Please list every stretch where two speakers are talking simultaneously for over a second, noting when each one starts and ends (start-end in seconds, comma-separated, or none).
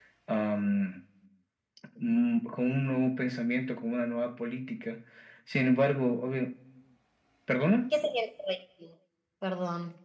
none